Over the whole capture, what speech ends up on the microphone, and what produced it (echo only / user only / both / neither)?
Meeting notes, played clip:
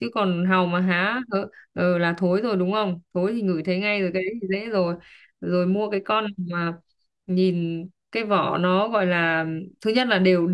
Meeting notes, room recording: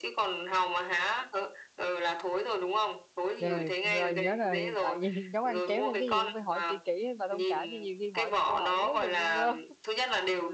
both